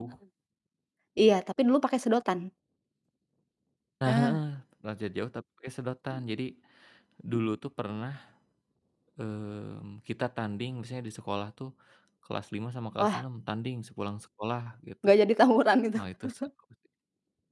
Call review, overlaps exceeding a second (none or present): none